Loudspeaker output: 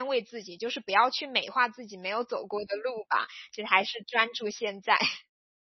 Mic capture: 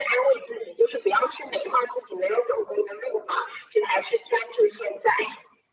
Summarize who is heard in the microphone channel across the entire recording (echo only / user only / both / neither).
echo only